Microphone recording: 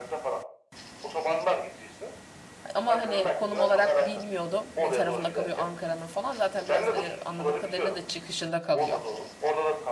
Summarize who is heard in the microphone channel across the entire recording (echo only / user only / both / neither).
both